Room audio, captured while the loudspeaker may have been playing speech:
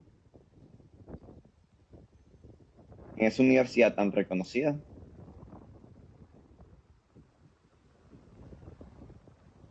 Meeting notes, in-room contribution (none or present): present